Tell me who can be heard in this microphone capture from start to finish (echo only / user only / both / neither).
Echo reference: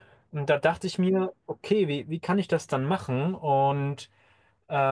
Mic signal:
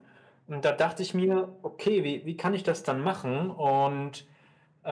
echo only